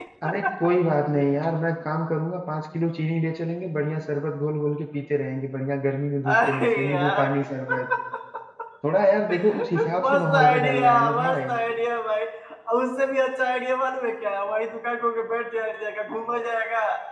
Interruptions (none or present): present